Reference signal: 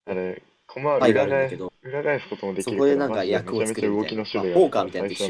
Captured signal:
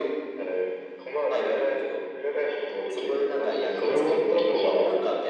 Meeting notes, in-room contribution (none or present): present